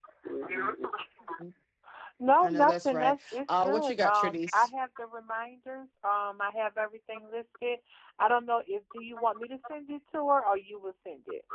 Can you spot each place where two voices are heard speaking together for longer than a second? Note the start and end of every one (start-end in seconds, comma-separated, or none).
2.4-4.7